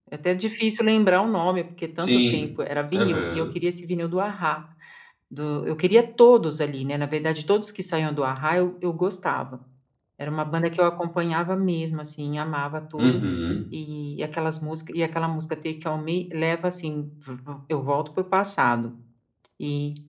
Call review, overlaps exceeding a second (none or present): none